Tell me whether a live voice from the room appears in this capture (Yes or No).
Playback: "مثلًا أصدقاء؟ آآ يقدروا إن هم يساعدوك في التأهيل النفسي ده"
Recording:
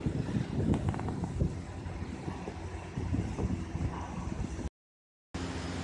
No